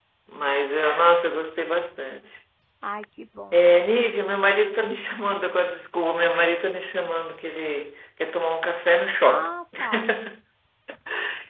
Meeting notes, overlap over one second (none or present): none